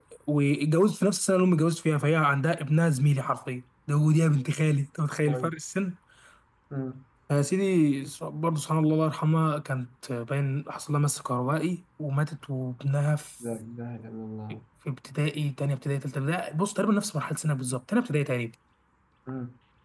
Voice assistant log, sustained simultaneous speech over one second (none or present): none